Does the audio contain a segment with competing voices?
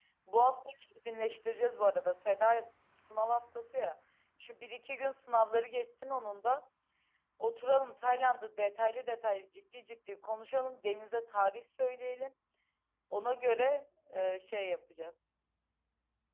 No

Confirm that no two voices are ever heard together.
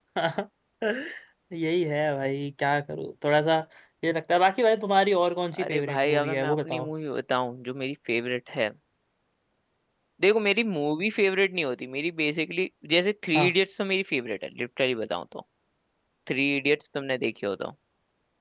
No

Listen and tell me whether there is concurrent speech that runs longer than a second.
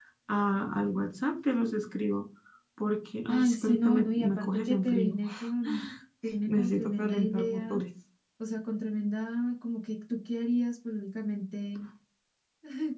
Yes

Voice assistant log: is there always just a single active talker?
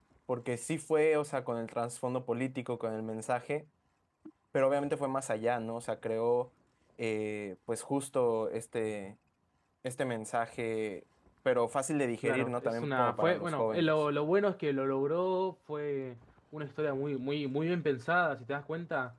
No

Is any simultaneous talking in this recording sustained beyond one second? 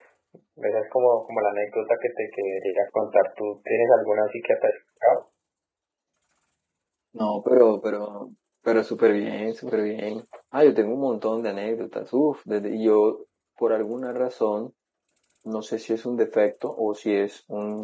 No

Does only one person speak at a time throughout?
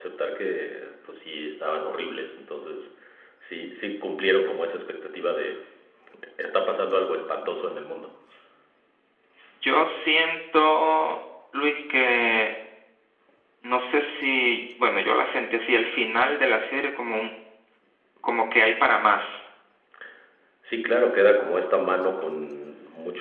Yes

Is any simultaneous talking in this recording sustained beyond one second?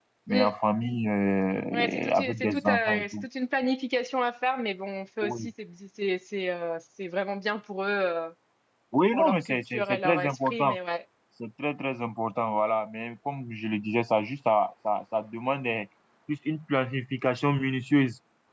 Yes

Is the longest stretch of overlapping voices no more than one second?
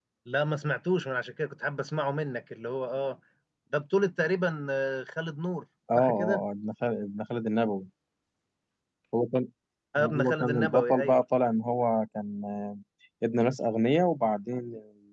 No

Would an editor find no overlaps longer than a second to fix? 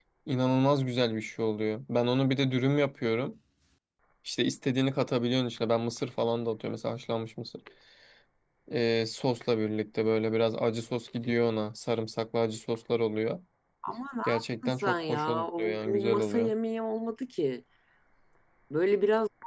No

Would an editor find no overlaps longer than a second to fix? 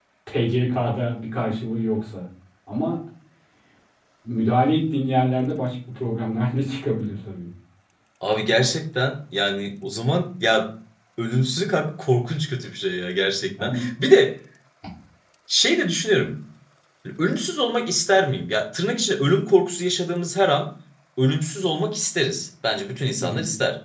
Yes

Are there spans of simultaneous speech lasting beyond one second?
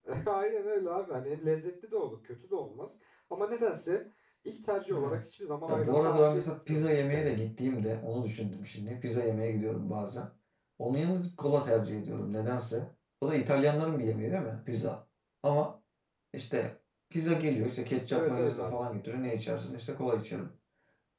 Yes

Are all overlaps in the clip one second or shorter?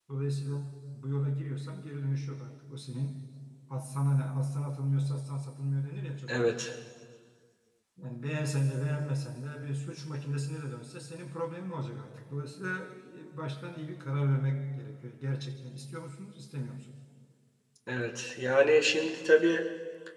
Yes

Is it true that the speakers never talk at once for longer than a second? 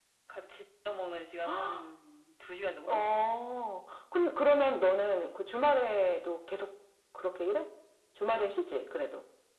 Yes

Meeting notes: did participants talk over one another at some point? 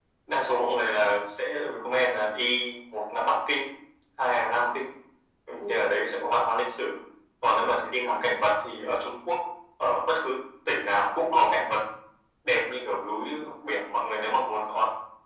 No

